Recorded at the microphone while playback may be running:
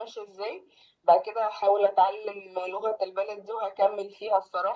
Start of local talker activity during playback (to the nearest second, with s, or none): none